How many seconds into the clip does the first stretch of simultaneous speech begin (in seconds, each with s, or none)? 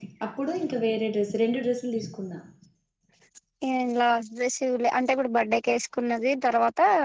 none